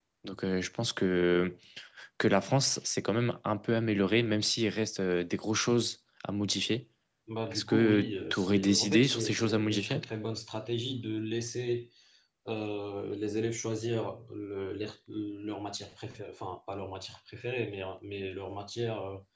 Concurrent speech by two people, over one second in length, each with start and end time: 7.5-10.0

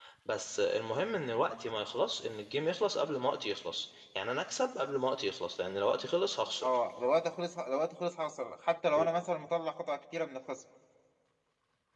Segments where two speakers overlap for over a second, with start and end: none

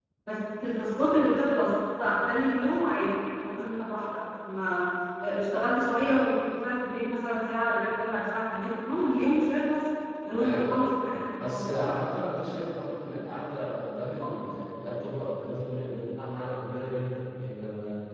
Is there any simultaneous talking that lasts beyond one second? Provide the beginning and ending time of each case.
none

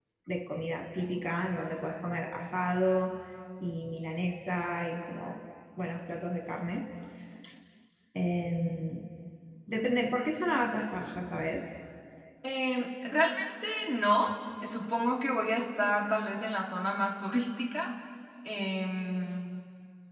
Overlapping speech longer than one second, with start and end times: none

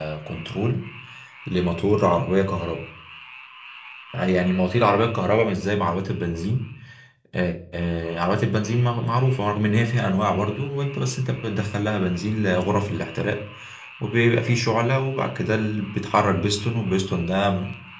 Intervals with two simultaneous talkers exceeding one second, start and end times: none

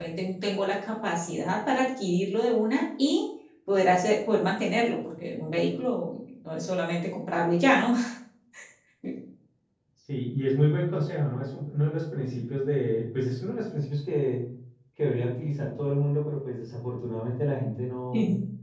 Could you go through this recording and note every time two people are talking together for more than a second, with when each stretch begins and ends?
none

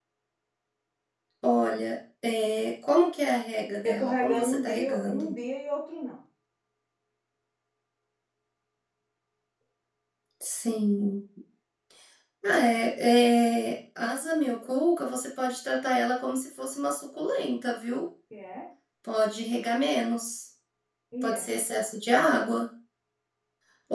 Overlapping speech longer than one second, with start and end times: 3.8-5.4

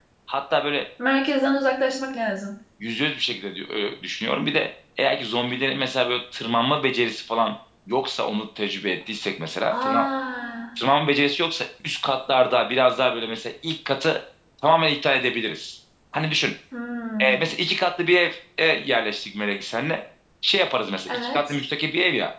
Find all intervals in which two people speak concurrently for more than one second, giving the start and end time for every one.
none

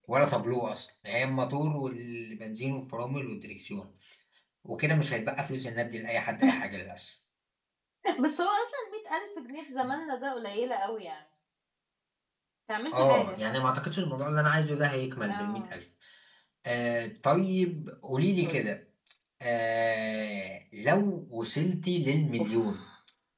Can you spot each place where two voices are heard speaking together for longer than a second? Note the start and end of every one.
none

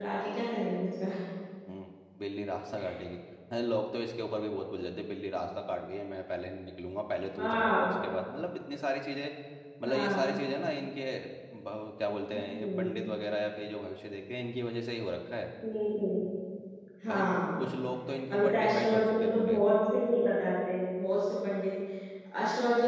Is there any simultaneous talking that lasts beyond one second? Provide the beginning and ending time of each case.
18.3-19.6

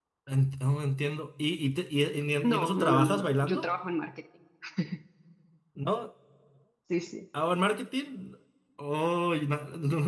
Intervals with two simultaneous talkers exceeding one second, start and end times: 2.4-3.6

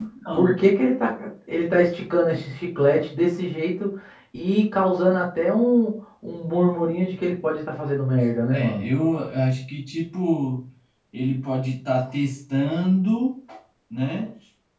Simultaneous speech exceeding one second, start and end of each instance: none

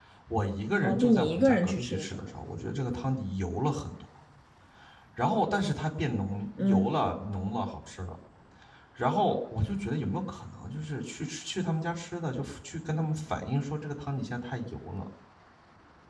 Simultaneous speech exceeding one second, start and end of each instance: 0.8-2.2

